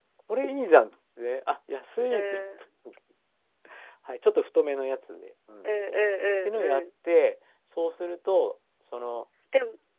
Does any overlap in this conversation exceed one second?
No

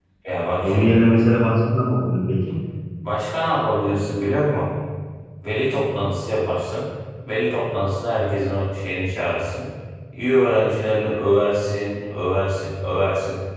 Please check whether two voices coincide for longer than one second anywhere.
No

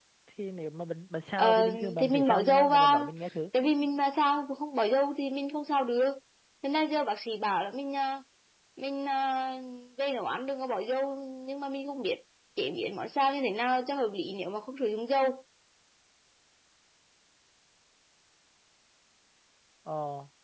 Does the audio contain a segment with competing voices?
Yes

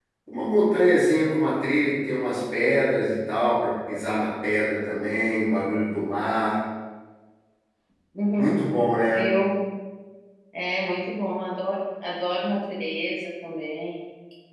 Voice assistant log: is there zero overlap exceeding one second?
Yes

